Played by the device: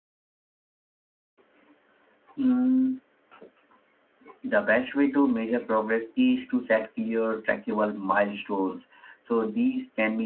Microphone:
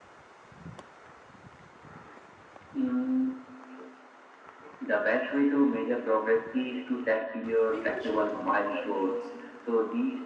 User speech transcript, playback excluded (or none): people should connect their goals